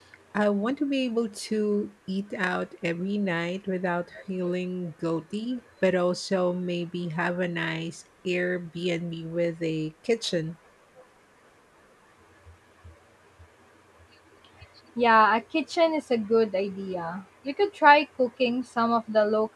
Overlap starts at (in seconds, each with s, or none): none